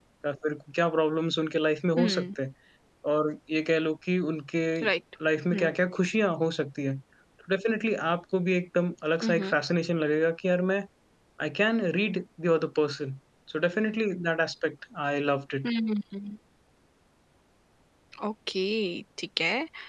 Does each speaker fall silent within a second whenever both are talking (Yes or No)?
Yes